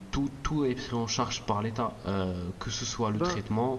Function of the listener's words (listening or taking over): listening